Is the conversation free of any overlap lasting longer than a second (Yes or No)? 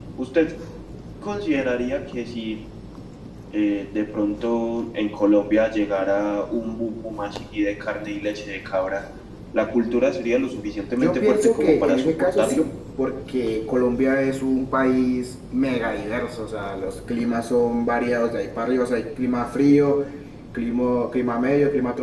No